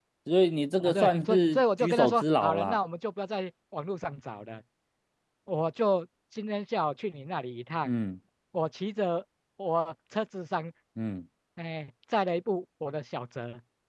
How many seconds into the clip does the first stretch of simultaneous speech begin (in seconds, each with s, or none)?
0.8 s